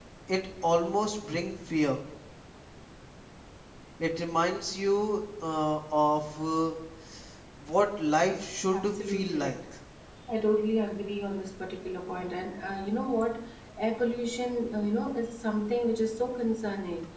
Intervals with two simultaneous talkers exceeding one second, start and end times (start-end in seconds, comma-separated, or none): 8.1-9.6